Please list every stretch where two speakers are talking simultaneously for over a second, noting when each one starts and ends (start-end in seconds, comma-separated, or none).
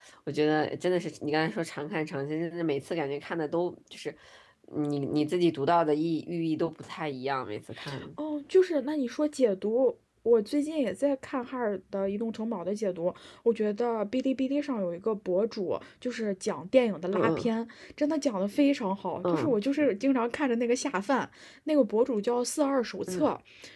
none